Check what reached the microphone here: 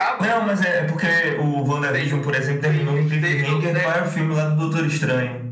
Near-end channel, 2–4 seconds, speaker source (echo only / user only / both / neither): echo only